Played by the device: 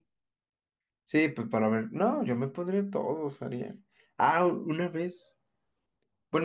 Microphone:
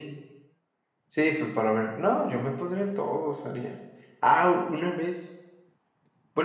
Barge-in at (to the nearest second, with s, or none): none